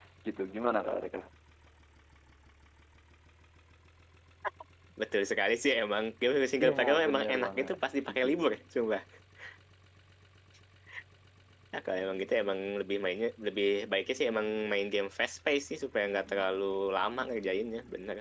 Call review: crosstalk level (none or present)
present